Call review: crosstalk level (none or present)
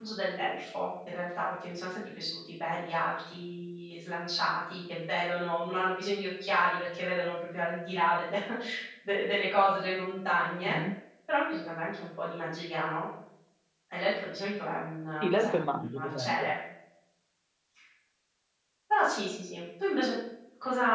present